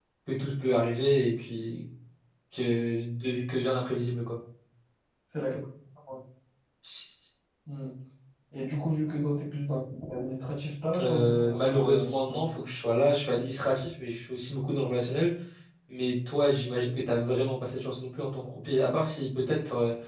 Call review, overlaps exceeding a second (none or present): present